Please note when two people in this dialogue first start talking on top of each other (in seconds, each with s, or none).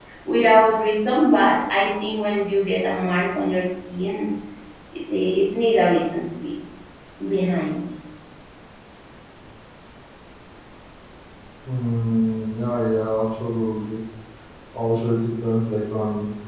none